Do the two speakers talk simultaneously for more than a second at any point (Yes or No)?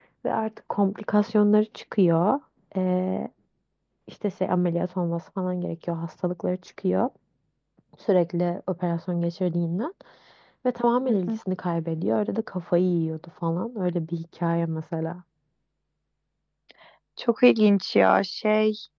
No